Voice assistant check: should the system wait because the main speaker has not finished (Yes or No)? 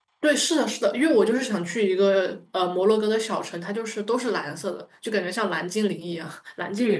No